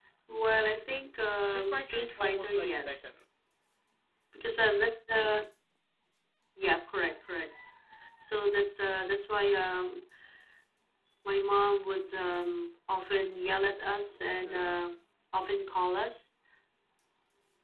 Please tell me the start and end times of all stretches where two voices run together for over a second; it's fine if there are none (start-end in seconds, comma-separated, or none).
1.4-3.0